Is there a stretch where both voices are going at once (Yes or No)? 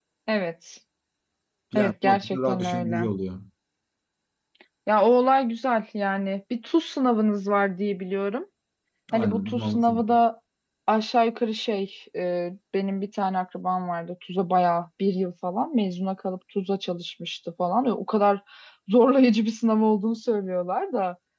Yes